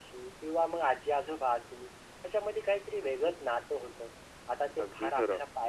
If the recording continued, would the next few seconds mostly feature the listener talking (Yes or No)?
No